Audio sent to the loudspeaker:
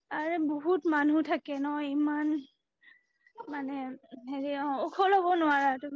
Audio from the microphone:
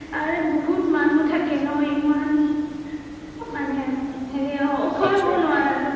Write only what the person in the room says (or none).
আচ্ছা আচ্ছা